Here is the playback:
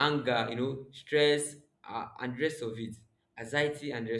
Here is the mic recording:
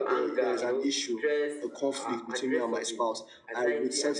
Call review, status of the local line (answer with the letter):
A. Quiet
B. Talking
B